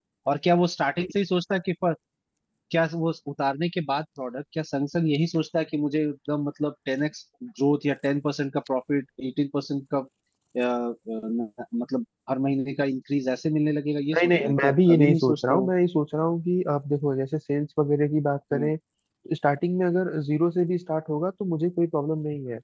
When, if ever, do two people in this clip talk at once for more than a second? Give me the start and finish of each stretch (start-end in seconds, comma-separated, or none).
14.2-15.6